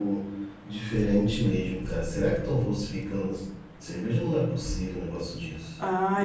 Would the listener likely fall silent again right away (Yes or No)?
No